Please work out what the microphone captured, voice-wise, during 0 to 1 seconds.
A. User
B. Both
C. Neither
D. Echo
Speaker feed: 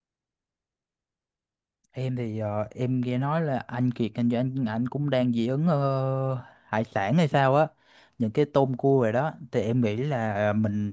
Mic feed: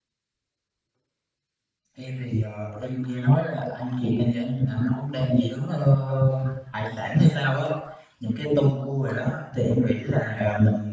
C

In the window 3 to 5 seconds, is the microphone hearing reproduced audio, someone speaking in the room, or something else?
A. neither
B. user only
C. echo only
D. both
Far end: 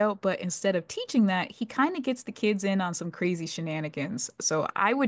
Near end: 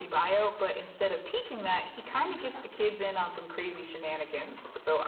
C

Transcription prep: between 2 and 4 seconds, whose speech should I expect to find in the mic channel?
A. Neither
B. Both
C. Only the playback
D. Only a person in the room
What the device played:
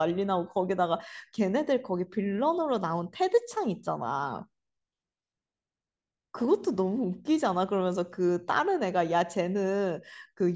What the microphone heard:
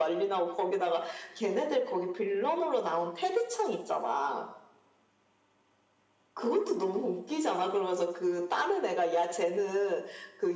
C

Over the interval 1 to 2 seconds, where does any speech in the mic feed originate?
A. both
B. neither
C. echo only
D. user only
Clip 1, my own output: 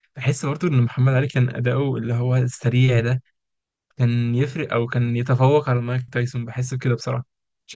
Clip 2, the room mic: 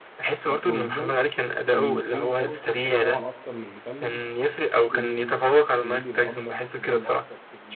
A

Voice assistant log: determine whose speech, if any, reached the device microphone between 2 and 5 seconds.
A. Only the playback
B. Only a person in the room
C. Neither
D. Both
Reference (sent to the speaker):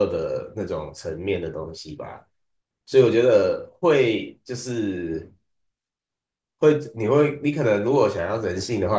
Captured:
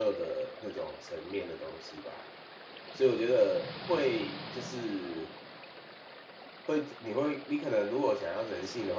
A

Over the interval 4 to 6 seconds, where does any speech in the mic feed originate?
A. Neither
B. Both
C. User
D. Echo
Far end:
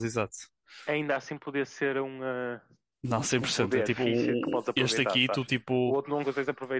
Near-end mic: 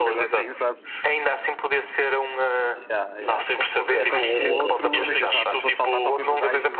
B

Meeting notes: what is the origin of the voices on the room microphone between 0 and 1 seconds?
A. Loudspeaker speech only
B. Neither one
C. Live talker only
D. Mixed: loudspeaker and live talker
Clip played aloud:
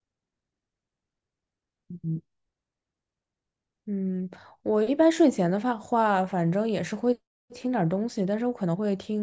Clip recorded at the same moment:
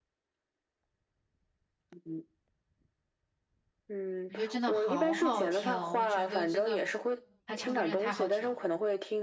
B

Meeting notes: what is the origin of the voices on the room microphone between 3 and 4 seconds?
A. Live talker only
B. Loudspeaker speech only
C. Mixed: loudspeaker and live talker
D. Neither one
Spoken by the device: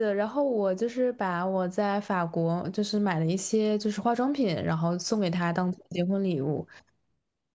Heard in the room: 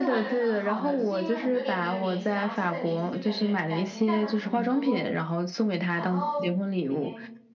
C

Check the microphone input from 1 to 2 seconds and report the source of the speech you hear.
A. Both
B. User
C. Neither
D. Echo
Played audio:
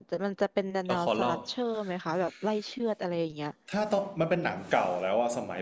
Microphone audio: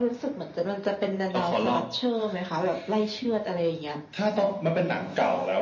D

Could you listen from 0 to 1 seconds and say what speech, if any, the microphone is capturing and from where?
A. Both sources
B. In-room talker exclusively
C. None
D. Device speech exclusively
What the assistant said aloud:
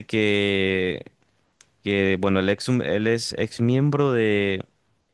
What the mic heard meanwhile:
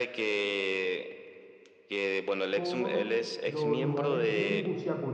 D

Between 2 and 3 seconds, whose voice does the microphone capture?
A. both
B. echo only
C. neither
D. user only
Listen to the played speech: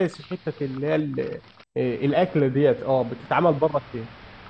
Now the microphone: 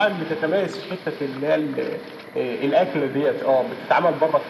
B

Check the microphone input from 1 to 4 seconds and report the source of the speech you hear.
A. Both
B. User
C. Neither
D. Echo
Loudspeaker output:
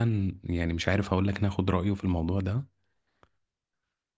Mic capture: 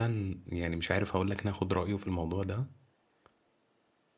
D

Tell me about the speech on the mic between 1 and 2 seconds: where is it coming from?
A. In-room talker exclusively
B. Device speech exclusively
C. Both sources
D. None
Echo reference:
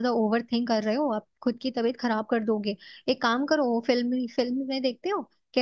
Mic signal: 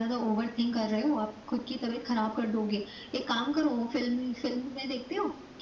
B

